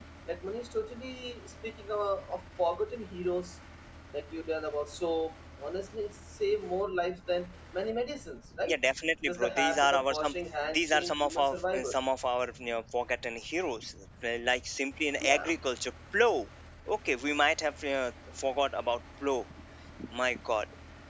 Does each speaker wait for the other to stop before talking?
No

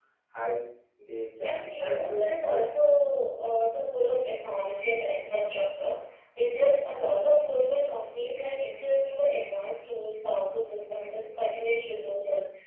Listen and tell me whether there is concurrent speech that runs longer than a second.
Yes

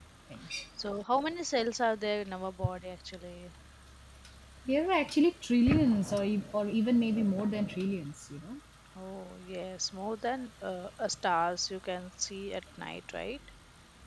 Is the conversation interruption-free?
Yes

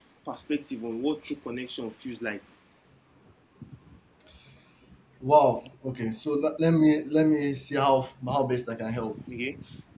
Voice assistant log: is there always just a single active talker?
Yes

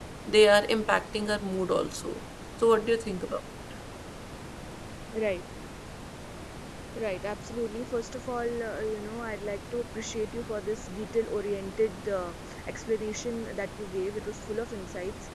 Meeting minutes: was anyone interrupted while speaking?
No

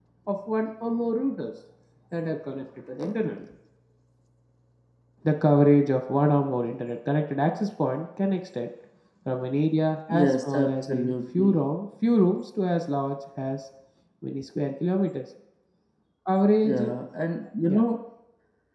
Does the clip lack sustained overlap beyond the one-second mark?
No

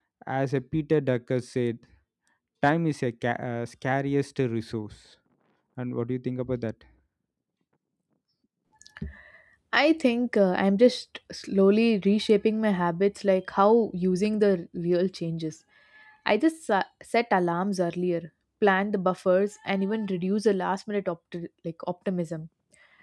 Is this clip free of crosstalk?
Yes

